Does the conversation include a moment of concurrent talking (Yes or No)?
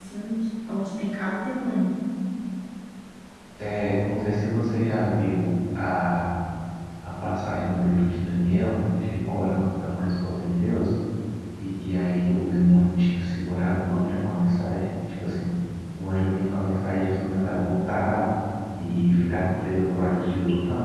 No